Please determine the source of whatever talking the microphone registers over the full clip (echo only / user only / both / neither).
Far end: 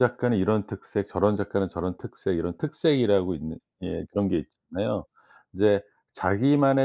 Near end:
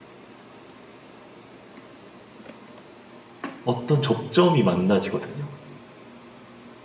user only